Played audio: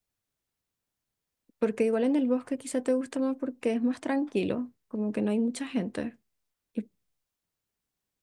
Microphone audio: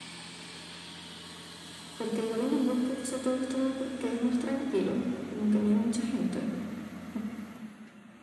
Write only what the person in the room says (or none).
none